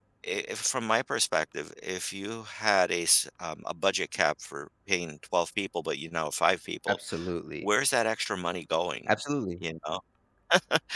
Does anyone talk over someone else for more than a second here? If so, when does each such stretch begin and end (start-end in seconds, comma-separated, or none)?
none